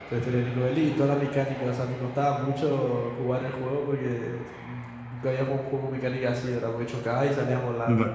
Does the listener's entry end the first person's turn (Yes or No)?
Yes